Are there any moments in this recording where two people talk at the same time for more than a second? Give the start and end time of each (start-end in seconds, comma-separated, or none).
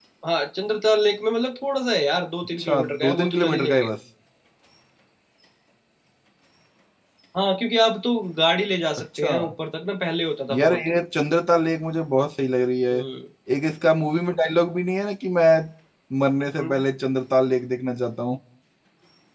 2.6-3.9